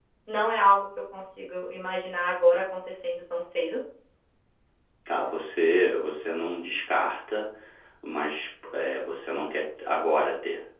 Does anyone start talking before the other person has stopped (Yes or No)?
No